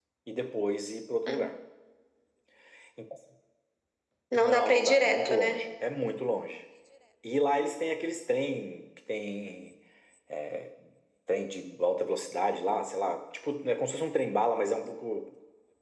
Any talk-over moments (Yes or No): Yes